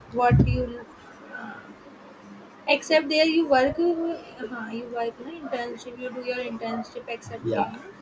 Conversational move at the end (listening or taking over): taking over